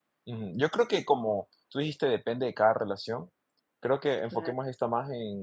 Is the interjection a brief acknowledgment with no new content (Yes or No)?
Yes